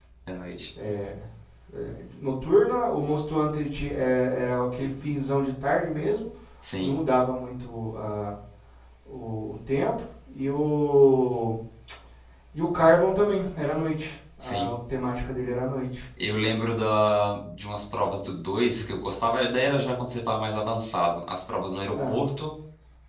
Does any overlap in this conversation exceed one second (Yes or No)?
No